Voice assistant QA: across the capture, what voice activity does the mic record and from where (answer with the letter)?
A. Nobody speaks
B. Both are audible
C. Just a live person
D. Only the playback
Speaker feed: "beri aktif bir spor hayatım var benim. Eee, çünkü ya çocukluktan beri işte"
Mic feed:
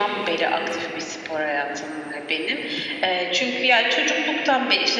D